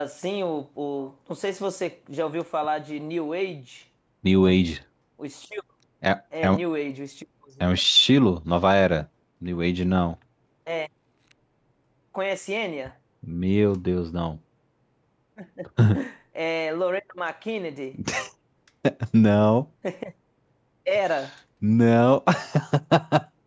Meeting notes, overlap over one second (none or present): none